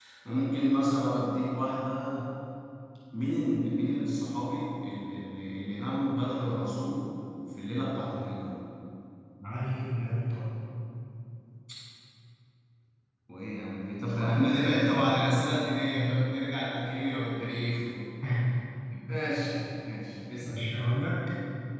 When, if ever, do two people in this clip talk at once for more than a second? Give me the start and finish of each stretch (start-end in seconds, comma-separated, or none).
14.1-15.3